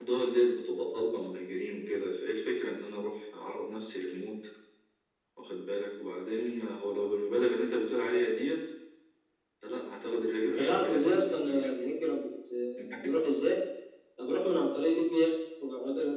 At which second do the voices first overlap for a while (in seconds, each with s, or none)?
10.4 s